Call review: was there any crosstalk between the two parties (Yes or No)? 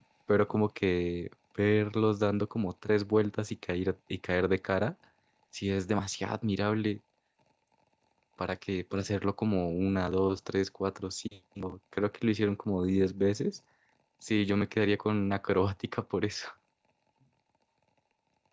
No